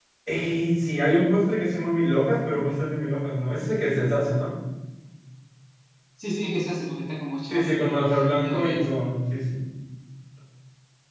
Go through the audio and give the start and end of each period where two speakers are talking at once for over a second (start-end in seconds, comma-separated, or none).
7.5-8.8